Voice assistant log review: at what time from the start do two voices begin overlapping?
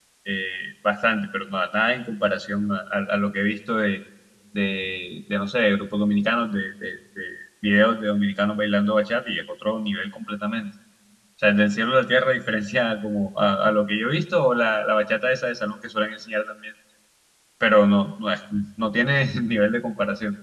none

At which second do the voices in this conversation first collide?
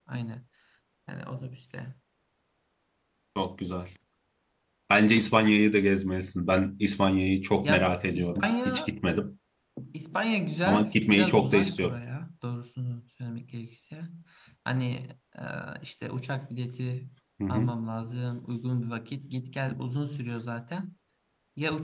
7.6 s

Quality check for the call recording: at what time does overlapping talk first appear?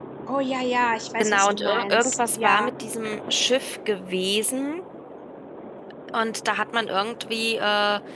1.2 s

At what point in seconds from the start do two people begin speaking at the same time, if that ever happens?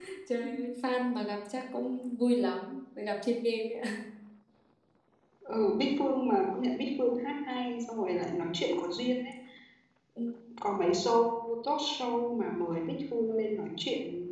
none

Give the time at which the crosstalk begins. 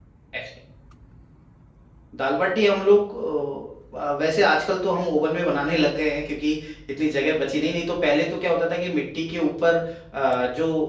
none

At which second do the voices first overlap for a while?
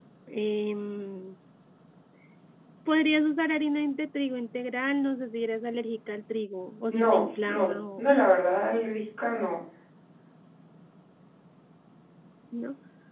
6.9 s

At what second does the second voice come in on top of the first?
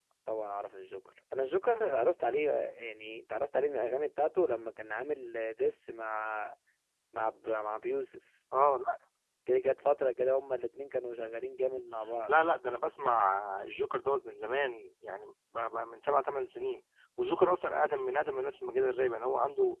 none

